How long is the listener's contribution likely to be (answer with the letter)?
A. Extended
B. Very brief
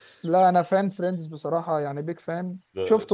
B